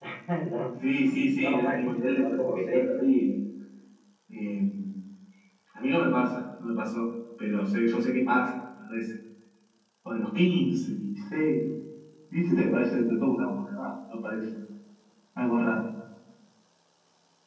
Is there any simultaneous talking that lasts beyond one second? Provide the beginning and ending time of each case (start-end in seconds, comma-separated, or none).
1.4-2.9